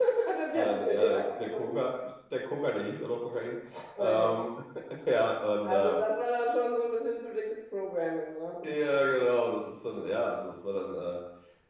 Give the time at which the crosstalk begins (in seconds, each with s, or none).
0.5 s